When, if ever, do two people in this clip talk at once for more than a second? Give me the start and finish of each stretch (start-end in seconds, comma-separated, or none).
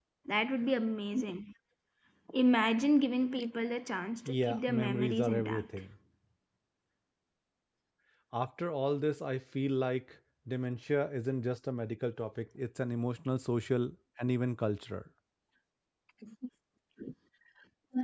4.3-5.7